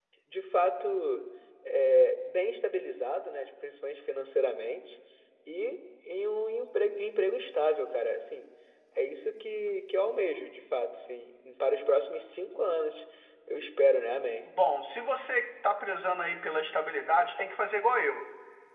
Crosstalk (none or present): none